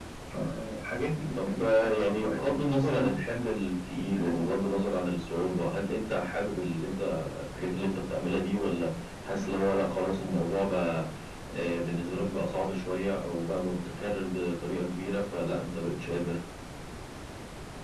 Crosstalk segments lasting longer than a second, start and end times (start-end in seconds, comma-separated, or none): 1.4-3.1